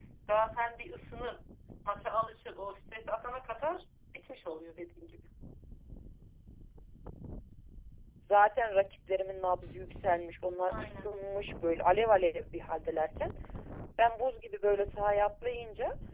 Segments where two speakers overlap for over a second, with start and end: none

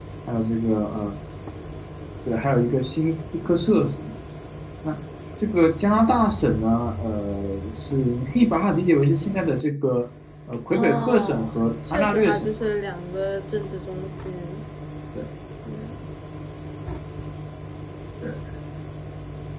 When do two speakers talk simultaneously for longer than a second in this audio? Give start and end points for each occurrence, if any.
10.7-12.7

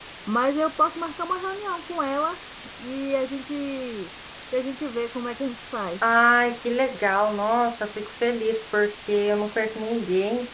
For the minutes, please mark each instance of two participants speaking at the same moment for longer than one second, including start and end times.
none

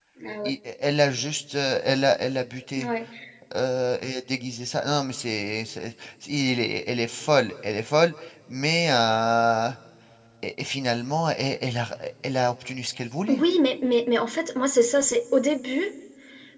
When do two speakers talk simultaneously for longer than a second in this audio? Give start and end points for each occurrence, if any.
none

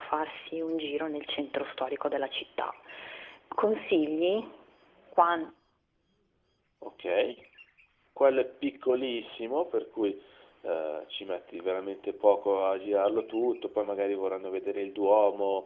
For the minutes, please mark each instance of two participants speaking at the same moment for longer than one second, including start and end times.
none

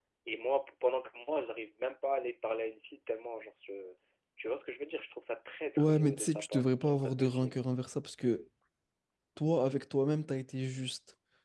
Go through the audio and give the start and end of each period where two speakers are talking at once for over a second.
5.8-7.6

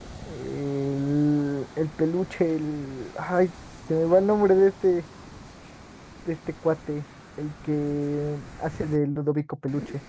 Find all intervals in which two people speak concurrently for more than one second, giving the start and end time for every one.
none

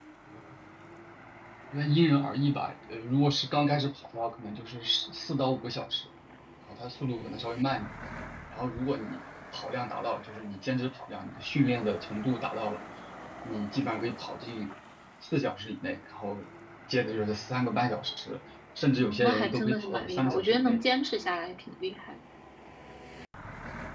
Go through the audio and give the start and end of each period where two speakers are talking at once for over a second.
19.0-20.8

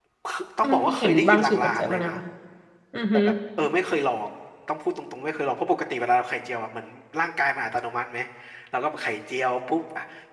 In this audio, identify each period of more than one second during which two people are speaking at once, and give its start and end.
0.6-2.1

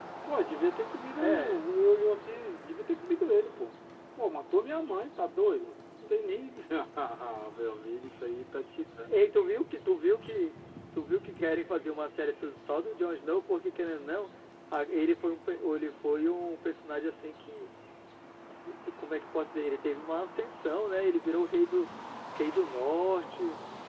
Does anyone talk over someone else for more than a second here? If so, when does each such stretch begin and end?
none

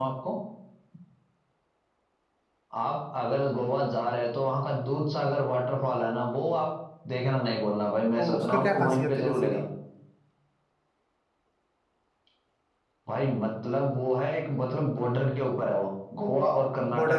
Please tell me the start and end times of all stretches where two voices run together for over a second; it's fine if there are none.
8.2-9.6

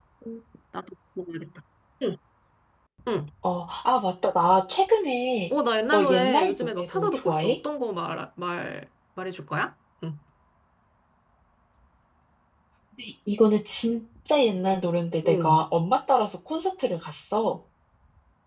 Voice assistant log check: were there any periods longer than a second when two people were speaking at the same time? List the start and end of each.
5.9-7.6

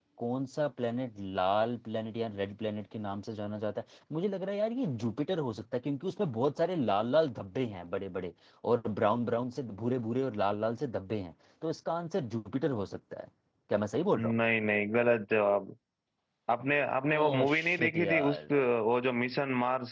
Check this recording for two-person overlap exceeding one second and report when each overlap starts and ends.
17.2-18.4

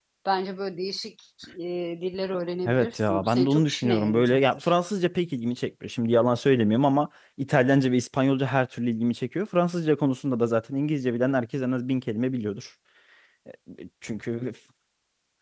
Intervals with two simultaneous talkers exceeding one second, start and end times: 2.6-4.7

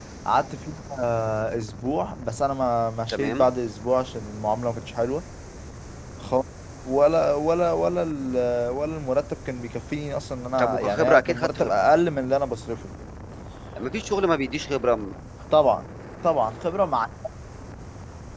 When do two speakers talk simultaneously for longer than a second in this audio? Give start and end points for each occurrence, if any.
10.6-11.8

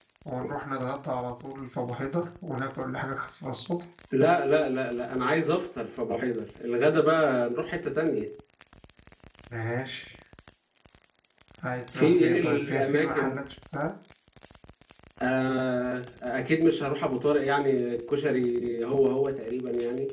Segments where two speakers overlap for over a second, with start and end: 11.9-13.3

